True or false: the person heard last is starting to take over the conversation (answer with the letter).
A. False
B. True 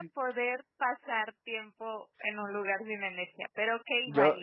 B